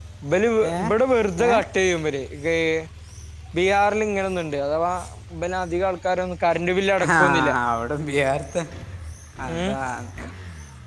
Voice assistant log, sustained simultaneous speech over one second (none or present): none